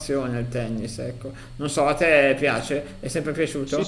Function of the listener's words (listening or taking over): taking over